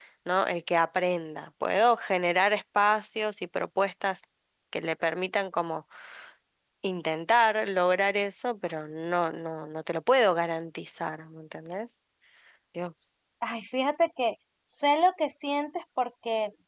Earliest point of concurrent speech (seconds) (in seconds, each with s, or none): none